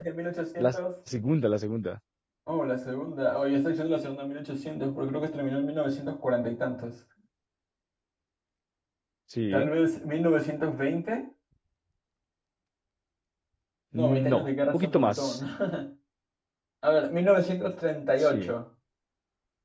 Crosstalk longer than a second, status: present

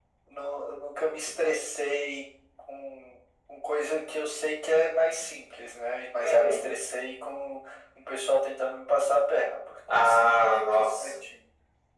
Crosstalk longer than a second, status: present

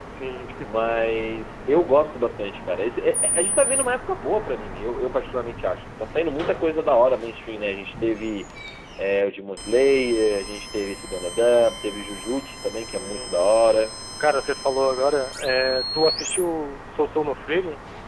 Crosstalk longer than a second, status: none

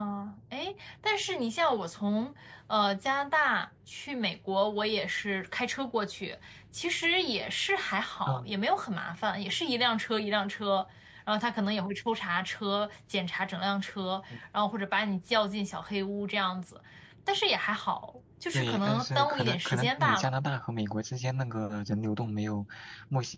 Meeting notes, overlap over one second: present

